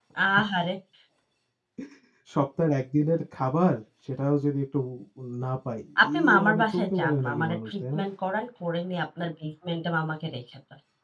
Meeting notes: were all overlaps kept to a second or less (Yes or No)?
No